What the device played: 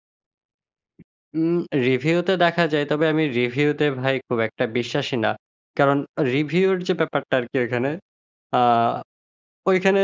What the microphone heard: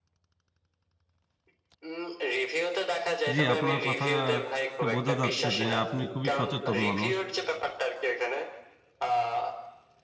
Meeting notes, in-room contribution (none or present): present